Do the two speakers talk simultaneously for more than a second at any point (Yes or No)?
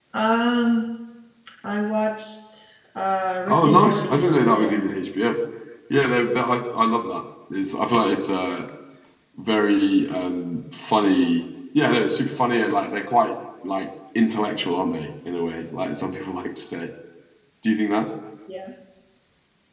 Yes